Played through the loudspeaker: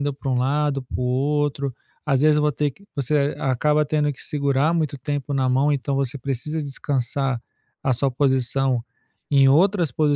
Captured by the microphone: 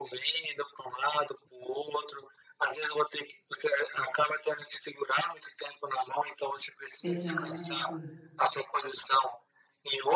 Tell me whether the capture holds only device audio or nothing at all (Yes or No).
No